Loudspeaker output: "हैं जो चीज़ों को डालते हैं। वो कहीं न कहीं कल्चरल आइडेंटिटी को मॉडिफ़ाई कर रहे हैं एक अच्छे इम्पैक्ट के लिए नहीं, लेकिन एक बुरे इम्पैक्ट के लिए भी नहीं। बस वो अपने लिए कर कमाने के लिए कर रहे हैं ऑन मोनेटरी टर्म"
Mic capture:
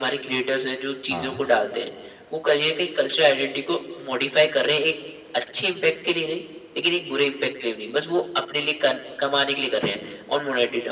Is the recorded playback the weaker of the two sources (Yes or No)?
No